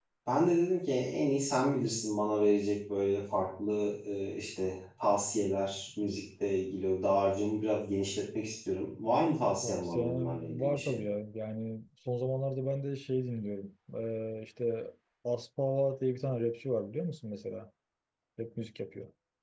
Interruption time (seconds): 9.6 s

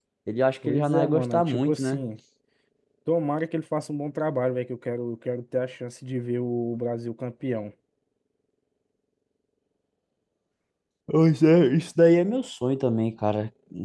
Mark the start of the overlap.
0.7 s

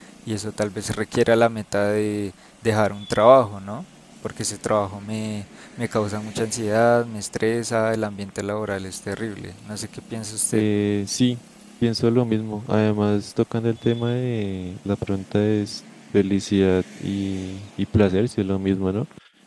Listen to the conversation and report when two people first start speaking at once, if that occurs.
none

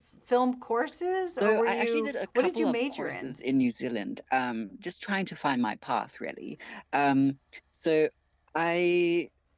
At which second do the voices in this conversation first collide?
1.3 s

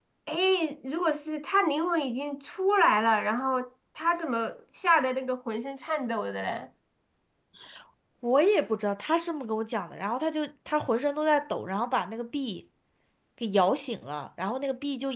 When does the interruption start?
none

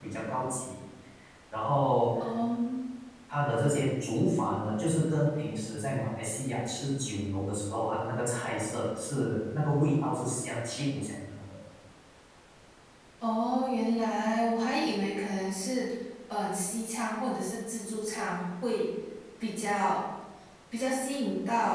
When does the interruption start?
none

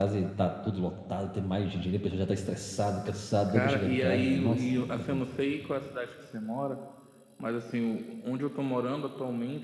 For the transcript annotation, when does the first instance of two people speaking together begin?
3.5 s

